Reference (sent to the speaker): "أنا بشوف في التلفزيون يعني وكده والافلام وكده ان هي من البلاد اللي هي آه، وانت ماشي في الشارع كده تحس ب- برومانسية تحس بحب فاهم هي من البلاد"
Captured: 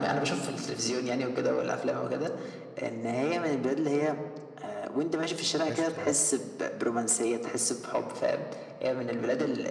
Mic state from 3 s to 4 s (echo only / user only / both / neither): echo only